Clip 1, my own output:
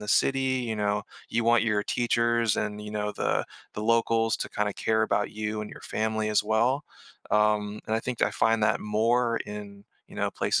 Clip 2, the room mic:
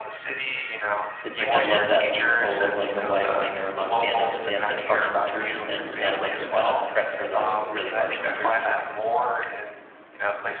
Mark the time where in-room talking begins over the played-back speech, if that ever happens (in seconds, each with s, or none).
1.2 s